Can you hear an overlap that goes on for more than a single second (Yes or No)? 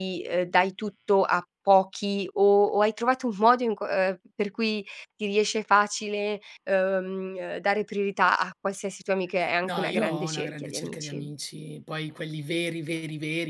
Yes